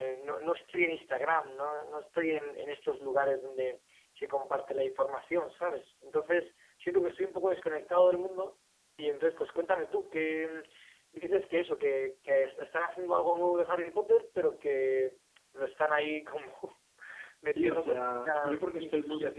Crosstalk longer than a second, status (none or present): present